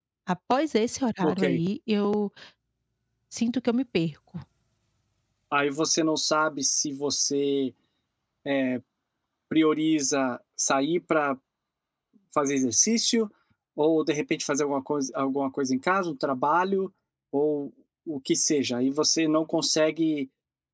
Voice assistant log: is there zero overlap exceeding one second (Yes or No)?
Yes